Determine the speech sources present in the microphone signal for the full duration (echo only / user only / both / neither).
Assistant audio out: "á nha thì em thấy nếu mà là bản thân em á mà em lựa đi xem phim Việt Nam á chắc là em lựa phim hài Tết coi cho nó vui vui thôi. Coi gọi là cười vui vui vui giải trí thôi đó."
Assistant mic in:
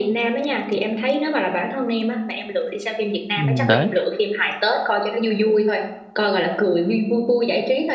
both